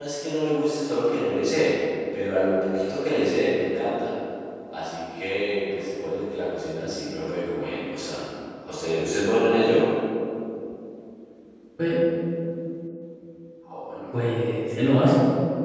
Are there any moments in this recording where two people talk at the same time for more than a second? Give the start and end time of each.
none

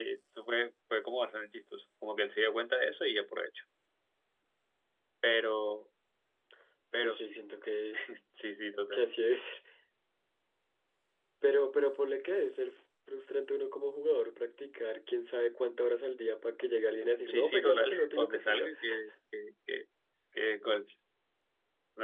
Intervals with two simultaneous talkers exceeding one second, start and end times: 17.3-18.7

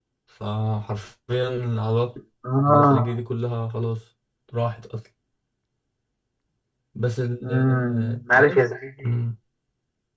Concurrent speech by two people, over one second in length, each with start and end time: 7.4-8.6

